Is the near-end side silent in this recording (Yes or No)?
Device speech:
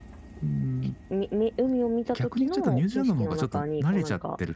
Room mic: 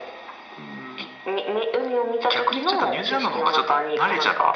Yes